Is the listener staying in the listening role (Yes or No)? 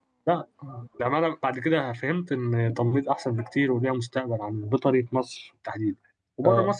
Yes